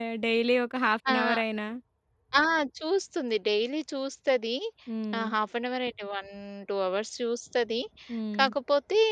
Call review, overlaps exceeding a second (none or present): none